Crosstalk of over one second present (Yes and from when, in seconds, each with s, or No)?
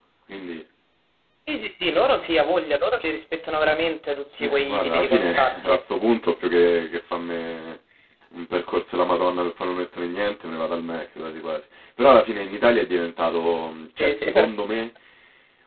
Yes, from 4.4 s